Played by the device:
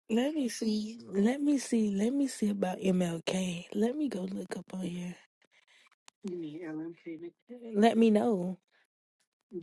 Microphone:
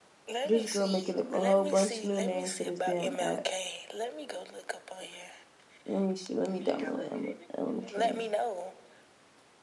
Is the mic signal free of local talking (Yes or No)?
No